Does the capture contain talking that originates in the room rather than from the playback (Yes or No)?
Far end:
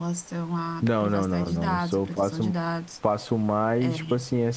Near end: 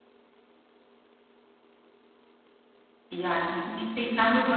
Yes